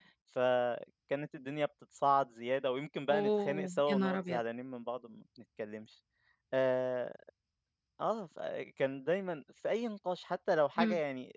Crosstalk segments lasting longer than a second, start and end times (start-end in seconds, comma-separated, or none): 3.1-4.4